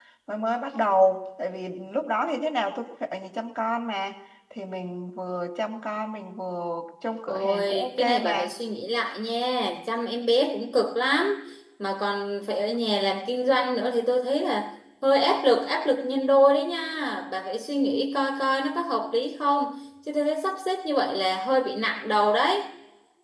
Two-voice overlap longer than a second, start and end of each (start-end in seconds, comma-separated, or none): 7.3-8.5